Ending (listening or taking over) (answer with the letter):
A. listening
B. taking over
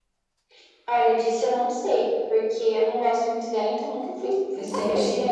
B